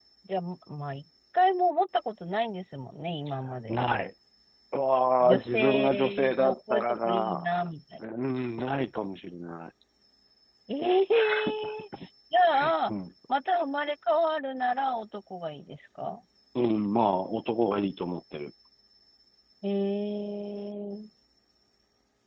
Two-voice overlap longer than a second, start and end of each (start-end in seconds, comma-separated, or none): 5.2-7.4